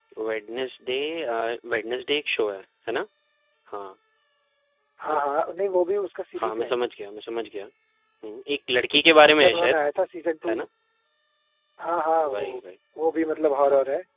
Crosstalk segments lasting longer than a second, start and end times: none

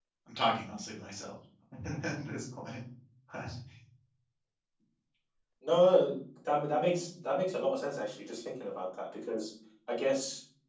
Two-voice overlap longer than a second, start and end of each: none

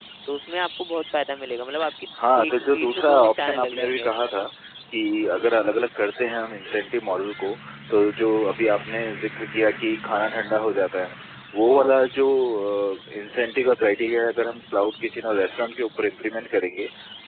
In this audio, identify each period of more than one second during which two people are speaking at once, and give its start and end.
2.5-4.1

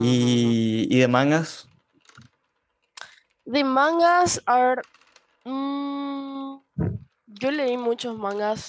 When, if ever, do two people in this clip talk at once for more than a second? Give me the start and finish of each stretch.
none

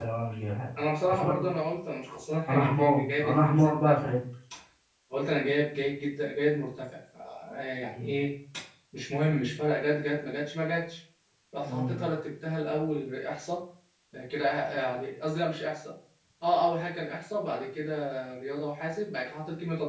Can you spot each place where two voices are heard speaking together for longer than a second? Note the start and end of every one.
2.5-4.0

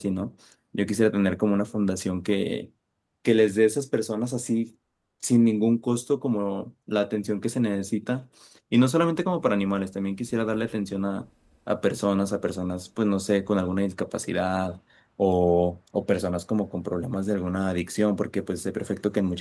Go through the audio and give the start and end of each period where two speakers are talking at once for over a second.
none

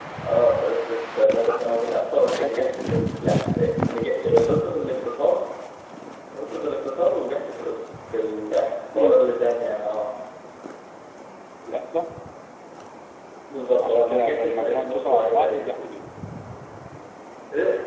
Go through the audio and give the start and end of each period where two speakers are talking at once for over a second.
13.8-15.9

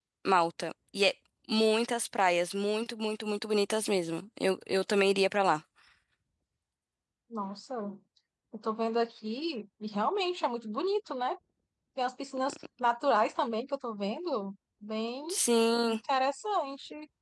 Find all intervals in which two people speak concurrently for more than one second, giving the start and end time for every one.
none

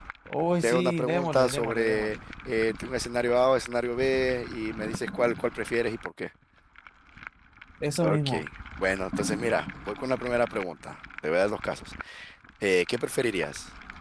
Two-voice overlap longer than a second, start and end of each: 0.6-2.2

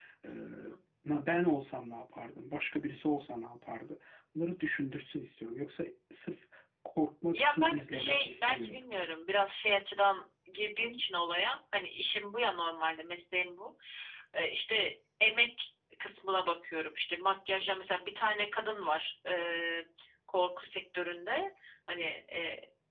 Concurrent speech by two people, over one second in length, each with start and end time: 7.3-8.8

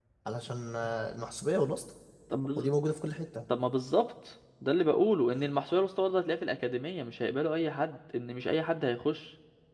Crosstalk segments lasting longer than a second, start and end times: none

